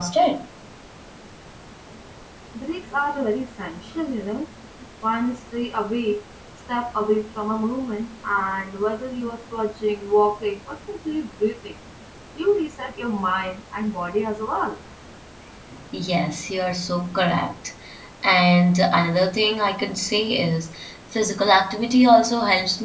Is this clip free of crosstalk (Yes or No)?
Yes